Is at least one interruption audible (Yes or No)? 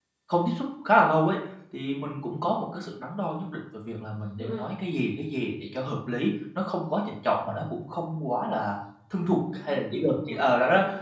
Yes